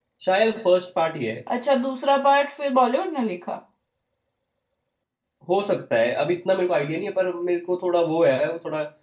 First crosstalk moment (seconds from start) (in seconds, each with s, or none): none